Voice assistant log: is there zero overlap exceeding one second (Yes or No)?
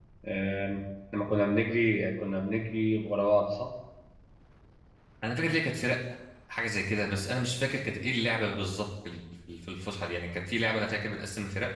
Yes